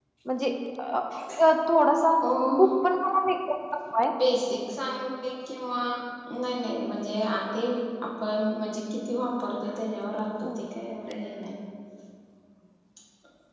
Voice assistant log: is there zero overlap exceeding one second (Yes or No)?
Yes